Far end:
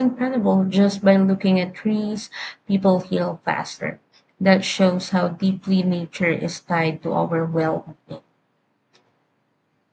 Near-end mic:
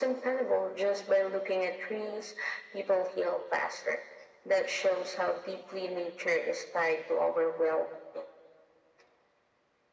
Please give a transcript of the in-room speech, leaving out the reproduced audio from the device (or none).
none